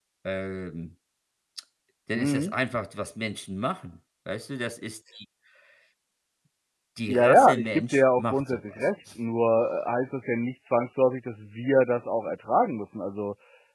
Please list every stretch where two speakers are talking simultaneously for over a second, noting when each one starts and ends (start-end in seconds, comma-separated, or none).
7.1-8.9